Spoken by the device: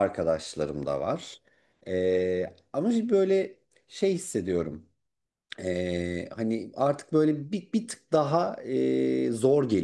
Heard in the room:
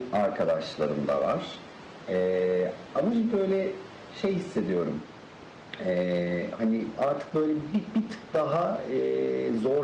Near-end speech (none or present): none